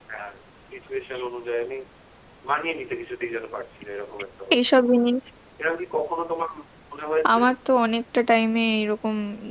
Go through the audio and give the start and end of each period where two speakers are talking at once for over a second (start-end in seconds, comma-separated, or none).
none